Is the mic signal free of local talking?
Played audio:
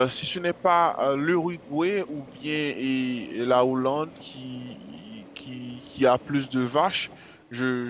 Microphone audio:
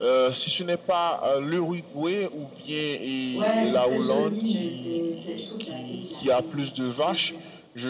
No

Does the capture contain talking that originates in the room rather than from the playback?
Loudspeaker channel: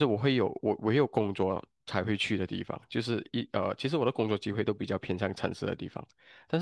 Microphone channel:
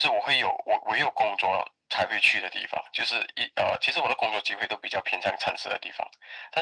No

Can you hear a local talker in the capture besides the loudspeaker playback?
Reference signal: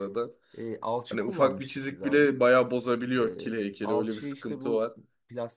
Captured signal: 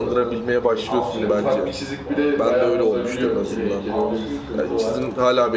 Yes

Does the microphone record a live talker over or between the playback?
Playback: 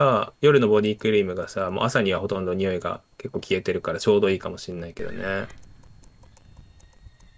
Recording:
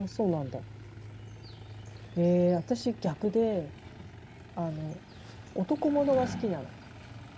Yes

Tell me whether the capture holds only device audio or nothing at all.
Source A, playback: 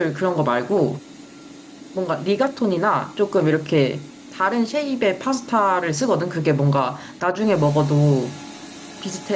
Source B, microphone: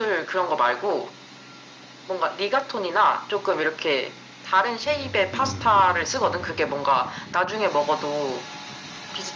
No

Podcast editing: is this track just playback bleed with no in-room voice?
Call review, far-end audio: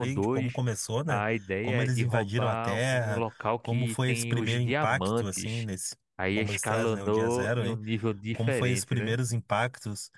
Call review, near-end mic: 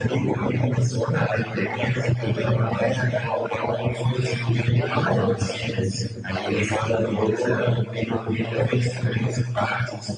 Yes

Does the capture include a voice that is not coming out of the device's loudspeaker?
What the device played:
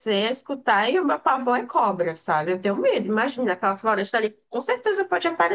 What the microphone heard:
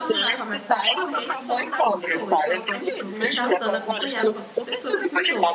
Yes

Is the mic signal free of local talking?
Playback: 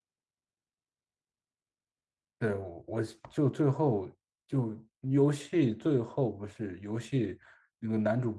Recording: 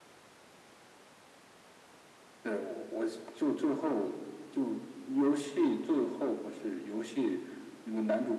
Yes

